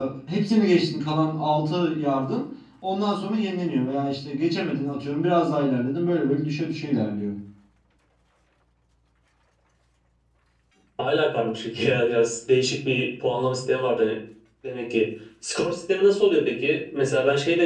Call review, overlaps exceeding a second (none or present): none